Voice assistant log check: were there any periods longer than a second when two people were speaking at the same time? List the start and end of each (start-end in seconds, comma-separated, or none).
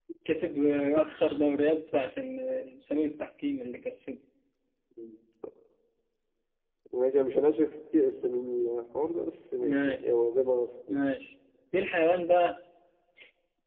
none